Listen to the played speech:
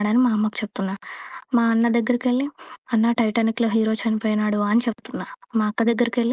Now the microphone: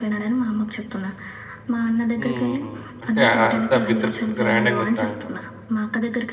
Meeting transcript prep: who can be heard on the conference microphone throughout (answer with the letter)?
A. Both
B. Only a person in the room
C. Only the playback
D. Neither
A